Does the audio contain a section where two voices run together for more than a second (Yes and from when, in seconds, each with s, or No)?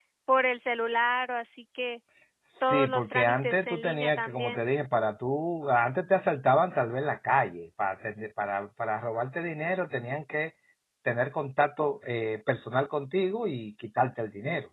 Yes, from 2.6 s